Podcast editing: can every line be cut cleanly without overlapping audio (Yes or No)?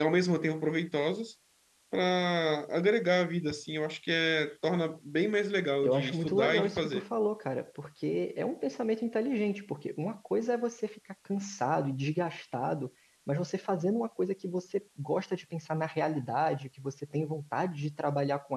No